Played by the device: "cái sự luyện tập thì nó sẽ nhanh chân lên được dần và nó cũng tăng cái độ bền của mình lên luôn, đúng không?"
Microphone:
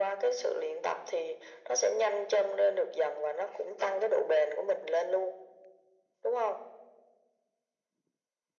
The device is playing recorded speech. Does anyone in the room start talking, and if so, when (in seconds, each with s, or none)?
none